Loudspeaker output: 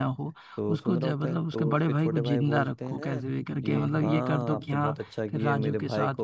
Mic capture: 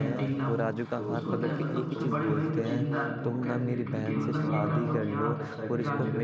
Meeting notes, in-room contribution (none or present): present